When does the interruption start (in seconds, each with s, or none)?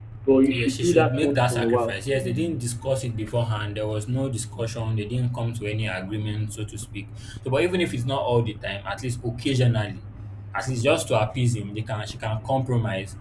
0.5 s